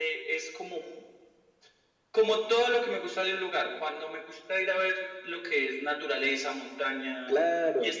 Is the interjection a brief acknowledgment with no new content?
Yes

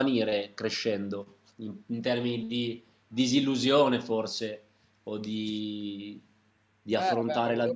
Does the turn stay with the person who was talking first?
No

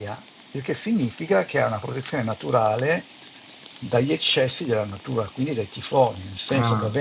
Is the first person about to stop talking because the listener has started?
No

